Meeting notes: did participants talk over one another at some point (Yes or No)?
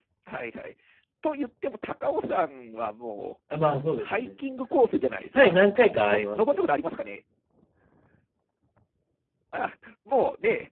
Yes